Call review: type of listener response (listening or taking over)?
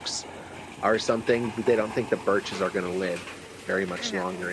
listening